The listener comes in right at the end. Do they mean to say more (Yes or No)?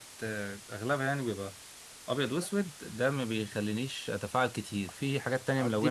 Yes